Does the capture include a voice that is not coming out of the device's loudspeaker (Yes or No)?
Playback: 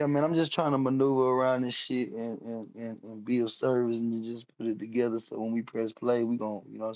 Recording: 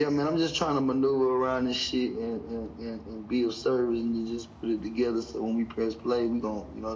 No